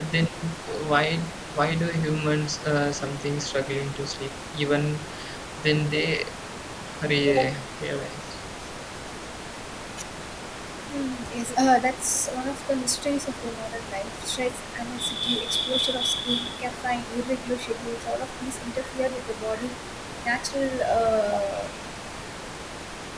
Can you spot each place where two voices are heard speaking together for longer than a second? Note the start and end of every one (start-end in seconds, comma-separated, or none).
none